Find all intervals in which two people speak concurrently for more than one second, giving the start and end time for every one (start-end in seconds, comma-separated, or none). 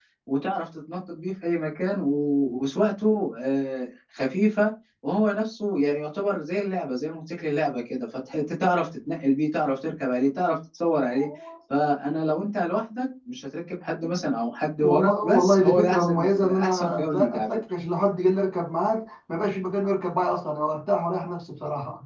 14.8-17.5